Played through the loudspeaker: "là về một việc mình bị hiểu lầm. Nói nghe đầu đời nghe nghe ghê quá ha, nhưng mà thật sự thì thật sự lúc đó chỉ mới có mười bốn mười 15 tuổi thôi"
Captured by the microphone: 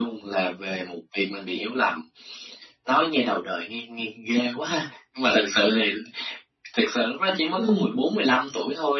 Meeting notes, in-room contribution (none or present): present